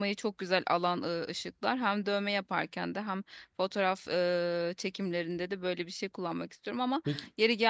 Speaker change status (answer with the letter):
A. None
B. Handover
A